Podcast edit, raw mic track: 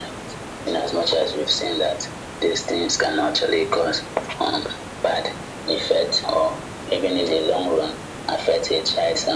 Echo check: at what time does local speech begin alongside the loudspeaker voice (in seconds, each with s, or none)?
none